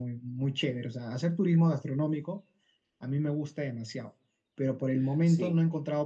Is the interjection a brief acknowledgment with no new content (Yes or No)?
Yes